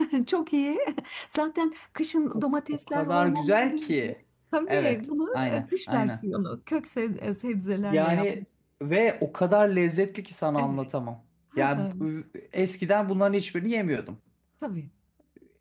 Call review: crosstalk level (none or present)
present